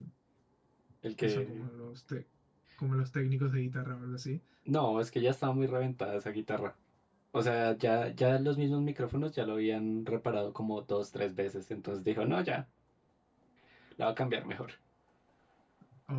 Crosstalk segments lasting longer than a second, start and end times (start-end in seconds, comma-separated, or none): none